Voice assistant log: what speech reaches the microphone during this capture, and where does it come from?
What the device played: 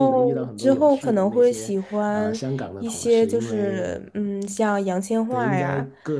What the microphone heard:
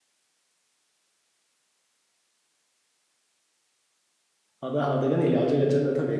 user only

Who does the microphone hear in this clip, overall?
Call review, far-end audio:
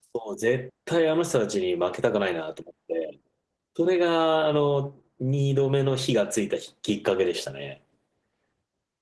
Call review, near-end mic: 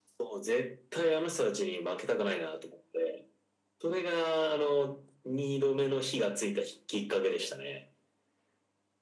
echo only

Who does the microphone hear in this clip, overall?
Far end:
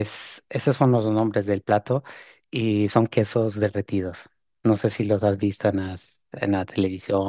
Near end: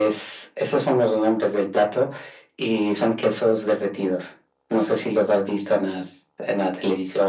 echo only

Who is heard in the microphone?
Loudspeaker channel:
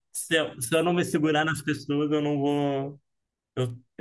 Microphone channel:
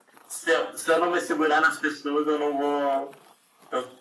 echo only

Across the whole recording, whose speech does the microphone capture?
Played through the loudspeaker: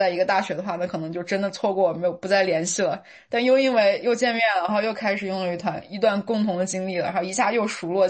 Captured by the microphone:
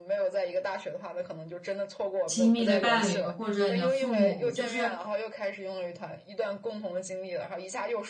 both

